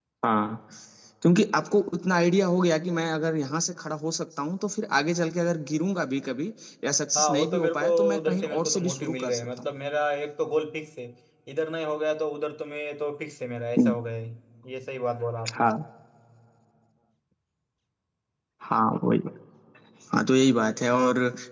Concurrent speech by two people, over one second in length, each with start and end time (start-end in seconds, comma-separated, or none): 7.2-9.6